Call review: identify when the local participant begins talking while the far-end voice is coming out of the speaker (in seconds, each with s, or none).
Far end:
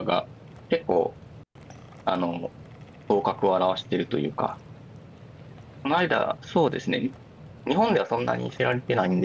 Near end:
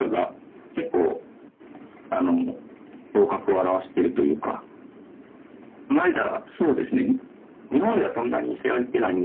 none